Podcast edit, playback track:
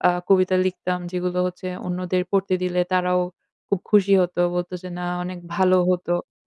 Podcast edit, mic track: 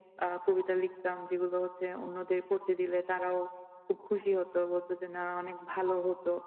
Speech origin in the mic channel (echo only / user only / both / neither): echo only